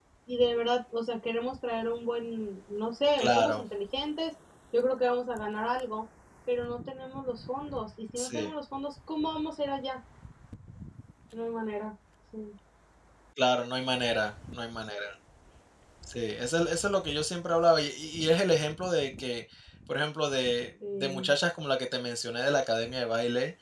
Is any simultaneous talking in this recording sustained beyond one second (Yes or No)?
No